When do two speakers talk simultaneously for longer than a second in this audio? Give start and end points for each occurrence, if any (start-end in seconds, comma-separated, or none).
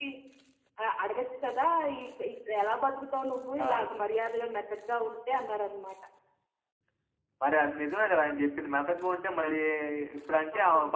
none